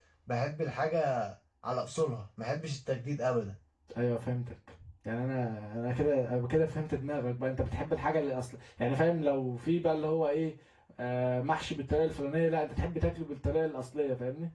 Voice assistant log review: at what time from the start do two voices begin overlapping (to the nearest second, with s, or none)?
none